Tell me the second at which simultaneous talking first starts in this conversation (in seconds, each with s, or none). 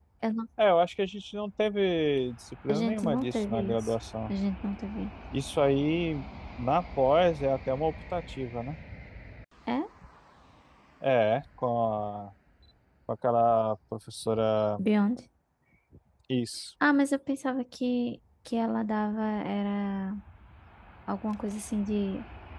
2.7 s